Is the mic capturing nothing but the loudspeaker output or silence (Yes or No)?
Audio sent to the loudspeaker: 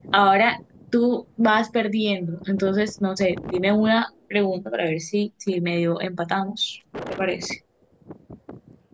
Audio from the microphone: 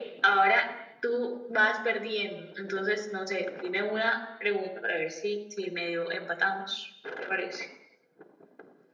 Yes